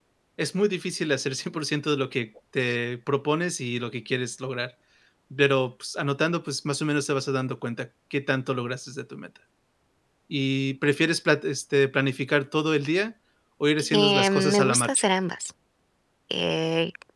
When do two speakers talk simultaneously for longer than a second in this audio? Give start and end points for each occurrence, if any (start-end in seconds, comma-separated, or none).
13.8-15.0